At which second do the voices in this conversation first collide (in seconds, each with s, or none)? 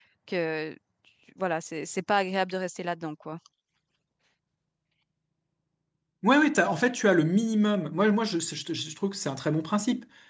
none